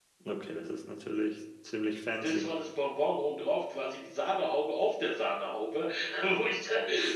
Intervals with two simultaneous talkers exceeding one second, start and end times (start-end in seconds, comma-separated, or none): none